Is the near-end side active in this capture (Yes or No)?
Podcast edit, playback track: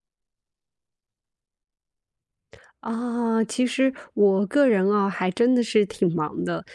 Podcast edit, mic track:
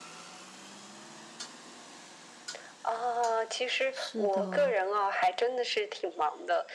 Yes